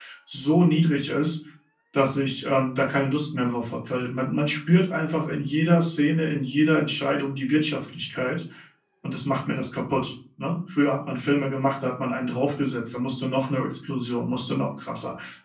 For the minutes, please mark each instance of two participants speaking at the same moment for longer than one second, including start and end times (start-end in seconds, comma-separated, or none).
none